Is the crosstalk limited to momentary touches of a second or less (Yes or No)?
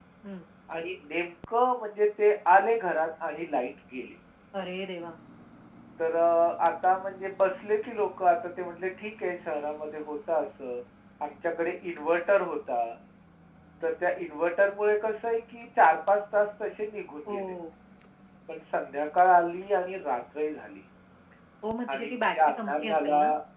No